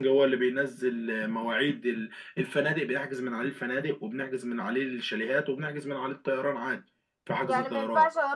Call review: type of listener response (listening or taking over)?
taking over